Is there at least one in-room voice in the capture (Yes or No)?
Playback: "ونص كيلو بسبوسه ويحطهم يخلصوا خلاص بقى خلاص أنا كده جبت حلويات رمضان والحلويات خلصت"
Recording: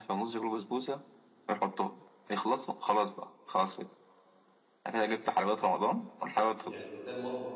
Yes